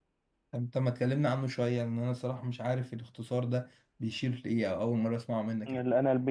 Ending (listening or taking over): taking over